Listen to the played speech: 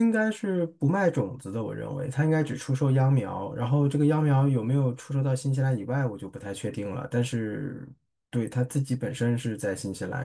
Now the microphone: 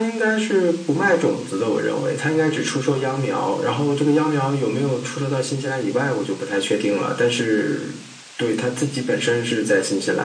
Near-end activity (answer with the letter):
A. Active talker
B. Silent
B